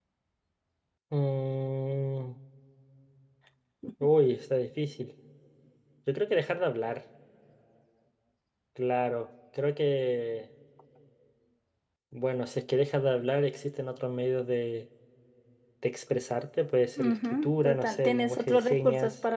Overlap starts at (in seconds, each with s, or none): 17.0 s